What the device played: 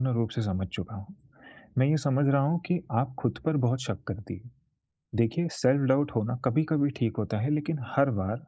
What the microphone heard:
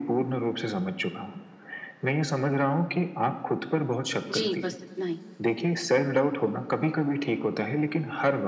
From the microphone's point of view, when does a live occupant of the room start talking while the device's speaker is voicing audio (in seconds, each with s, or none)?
4.3 s